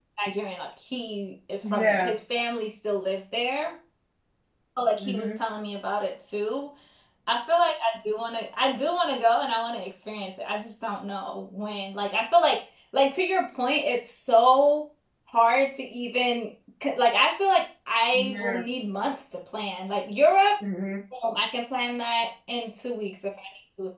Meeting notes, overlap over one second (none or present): none